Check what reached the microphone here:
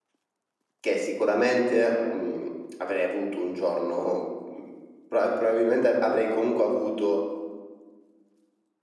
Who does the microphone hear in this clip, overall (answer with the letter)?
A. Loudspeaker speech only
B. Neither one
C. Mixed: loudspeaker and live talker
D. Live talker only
D